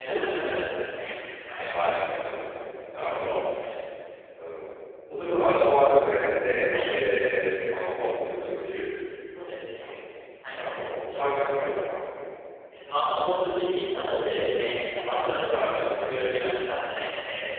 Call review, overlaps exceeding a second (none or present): none